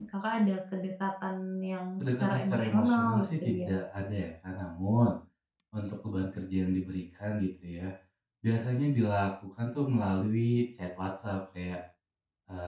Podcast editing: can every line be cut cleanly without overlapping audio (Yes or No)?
No